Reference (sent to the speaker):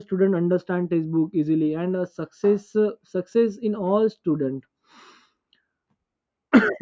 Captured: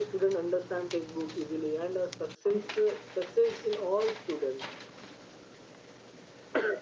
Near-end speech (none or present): none